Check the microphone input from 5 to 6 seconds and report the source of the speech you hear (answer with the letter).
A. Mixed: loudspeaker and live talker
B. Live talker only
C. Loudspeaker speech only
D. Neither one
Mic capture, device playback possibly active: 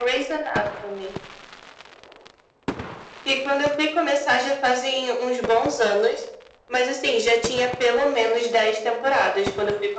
C